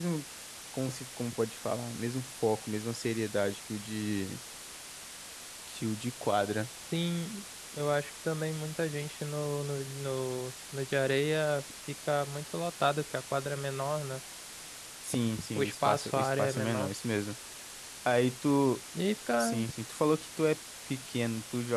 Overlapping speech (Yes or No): Yes